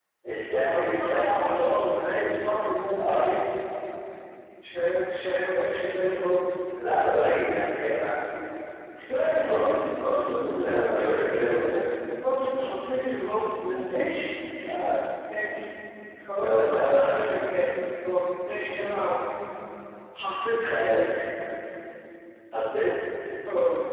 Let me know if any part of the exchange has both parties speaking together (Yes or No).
Yes